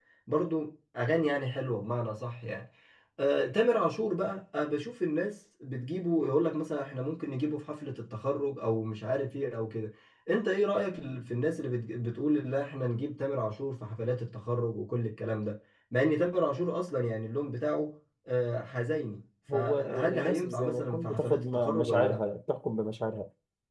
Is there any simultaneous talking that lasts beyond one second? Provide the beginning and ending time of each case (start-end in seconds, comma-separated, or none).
19.5-22.2